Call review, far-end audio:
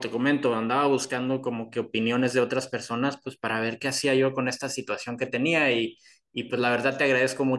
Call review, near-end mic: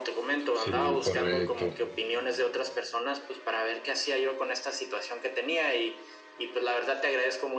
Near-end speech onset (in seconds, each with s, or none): 0.5 s